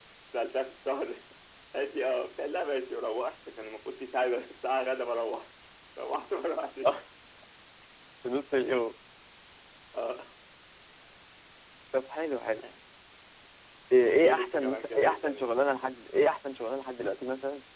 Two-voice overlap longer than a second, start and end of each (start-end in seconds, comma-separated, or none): 14.1-15.5